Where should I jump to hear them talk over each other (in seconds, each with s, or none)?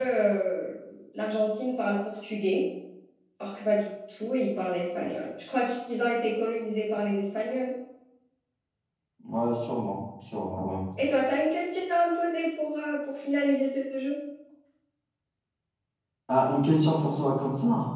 none